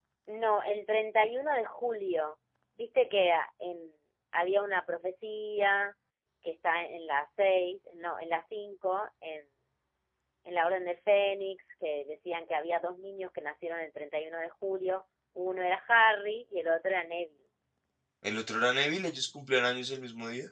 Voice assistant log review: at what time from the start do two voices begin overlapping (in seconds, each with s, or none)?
none